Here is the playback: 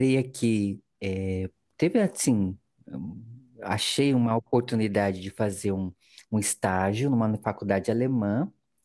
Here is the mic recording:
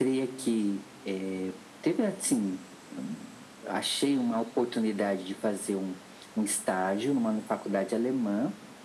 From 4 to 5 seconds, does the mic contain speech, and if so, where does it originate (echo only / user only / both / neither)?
echo only